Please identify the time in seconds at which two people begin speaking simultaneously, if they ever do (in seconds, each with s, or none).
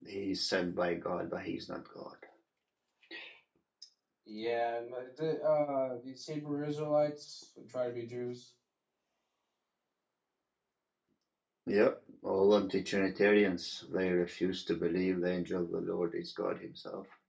none